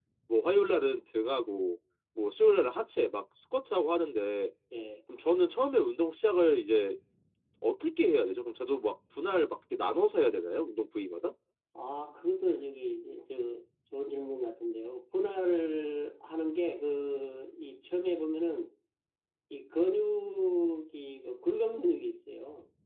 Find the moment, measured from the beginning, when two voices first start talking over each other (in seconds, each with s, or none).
none